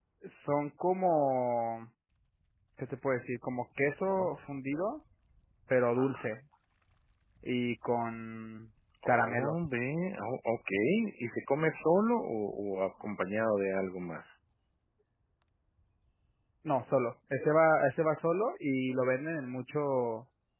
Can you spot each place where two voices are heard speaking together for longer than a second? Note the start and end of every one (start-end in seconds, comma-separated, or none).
none